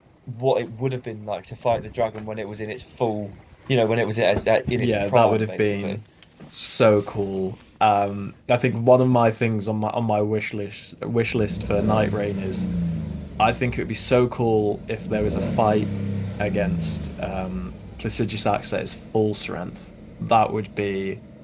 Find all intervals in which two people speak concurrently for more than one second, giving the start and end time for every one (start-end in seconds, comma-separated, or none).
4.8-6.0